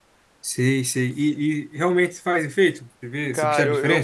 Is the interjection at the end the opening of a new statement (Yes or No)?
Yes